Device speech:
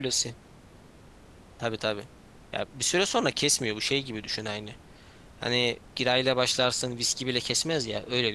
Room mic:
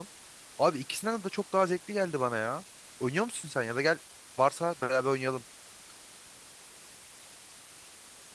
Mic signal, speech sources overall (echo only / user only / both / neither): user only